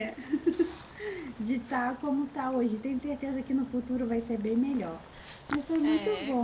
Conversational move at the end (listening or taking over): listening